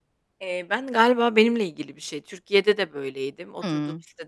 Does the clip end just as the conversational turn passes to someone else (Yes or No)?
No